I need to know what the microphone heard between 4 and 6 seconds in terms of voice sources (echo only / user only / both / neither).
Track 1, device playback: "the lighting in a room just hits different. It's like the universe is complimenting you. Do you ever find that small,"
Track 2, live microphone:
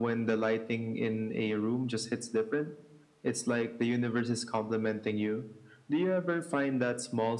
echo only